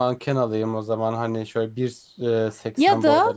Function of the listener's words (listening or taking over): taking over